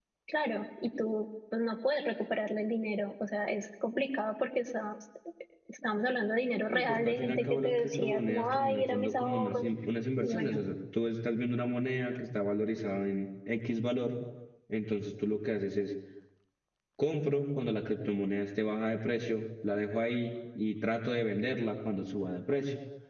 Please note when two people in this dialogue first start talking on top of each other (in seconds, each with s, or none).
6.7 s